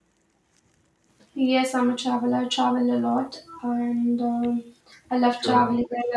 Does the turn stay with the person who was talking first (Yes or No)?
Yes